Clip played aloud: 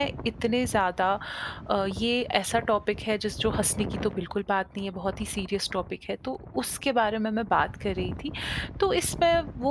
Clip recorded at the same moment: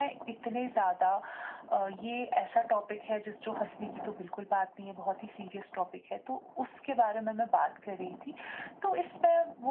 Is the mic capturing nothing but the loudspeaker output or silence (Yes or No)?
Yes